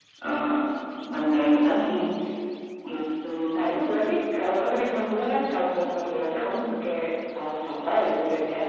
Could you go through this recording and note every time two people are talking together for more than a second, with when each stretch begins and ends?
none

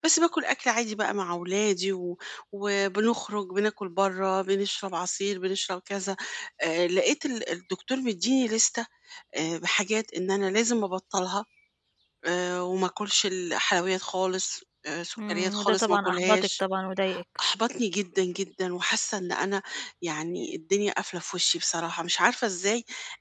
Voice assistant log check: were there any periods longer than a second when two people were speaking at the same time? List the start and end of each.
15.2-16.6

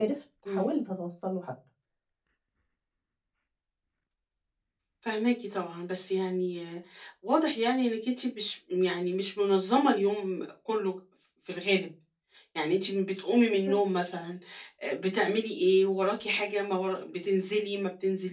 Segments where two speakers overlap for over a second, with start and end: none

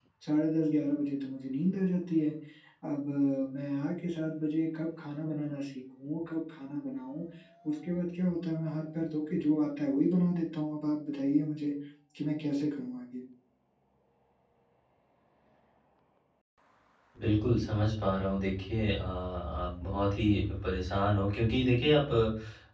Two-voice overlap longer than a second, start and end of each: none

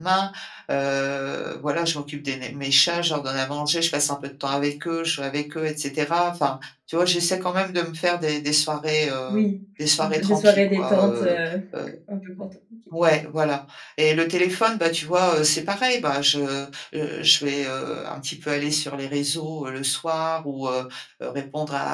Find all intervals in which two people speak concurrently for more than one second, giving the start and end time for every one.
10.0-11.4

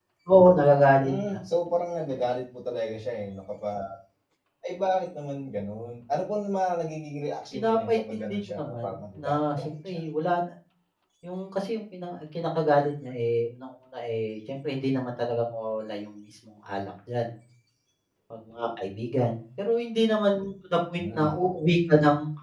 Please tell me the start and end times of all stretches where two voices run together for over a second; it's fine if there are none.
7.5-10.0

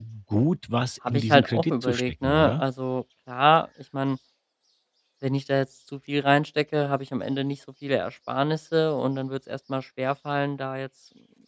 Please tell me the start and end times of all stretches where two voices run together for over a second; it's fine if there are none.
1.1-2.6

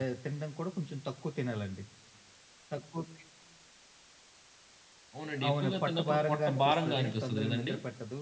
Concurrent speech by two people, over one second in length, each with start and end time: 5.5-7.7

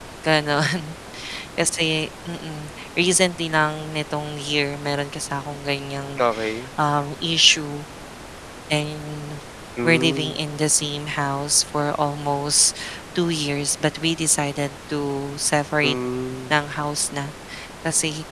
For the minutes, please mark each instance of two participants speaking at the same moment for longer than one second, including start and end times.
none

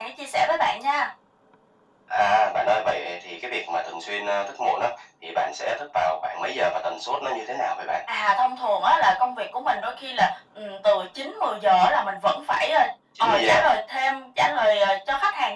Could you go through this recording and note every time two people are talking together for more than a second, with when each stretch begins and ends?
none

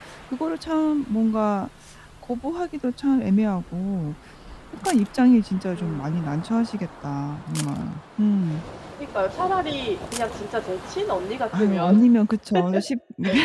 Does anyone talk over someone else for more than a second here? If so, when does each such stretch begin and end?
none

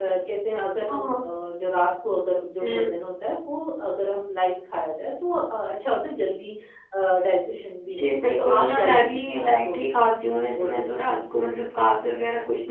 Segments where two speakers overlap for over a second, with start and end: 7.8-9.8

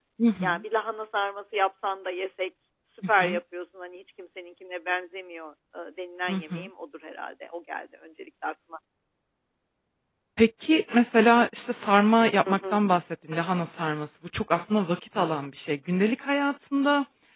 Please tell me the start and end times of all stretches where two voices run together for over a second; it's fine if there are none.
none

